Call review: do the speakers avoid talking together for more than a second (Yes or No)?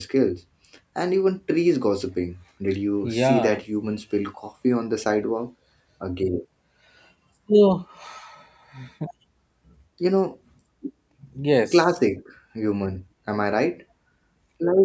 Yes